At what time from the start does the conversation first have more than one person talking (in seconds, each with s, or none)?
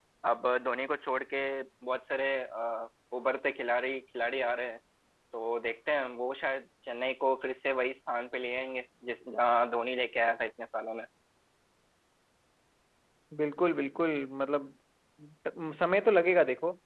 none